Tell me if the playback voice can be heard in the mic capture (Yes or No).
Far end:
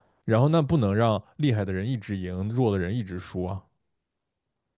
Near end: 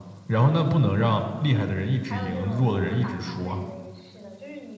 Yes